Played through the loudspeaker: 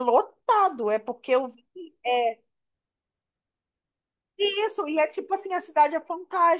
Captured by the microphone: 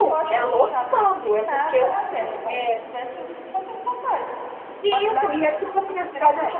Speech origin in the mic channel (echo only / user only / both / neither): both